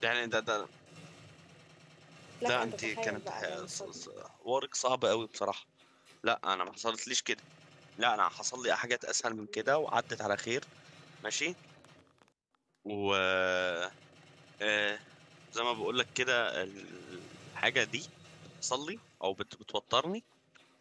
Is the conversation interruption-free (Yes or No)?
No